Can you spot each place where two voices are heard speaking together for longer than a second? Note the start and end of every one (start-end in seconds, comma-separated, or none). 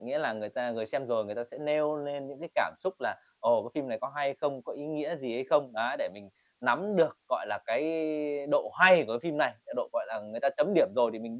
none